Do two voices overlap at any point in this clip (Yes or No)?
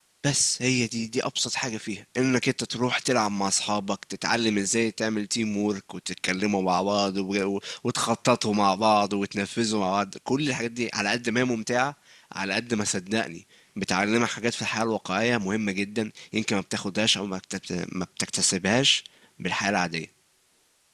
No